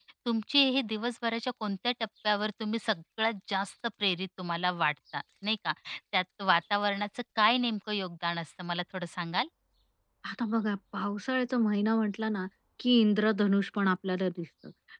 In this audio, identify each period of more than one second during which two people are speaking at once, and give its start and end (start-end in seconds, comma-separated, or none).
none